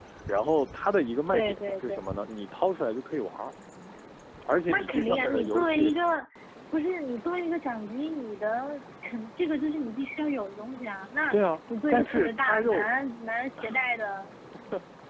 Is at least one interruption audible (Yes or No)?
Yes